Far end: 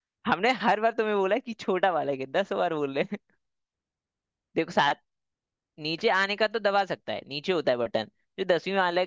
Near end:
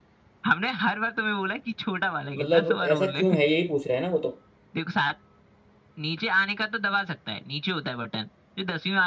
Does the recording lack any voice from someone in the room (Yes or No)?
No